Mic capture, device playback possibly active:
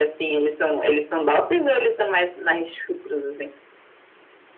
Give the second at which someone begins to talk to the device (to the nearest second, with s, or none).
none